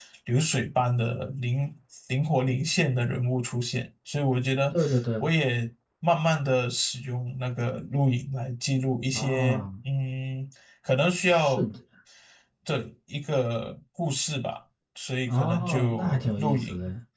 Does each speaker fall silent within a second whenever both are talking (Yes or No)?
No